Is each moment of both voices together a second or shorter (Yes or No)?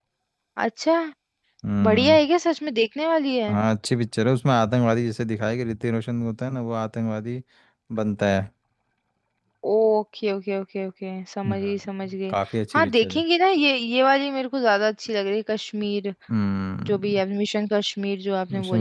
Yes